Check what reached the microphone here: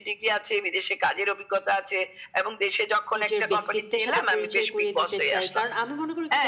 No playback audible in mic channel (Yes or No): No